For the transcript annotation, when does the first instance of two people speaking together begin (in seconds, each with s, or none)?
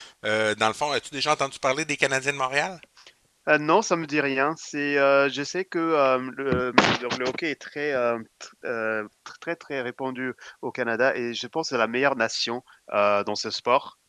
none